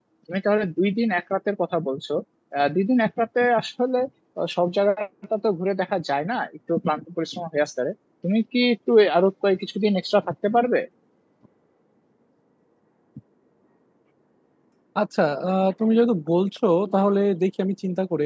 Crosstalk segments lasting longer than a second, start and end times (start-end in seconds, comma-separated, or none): none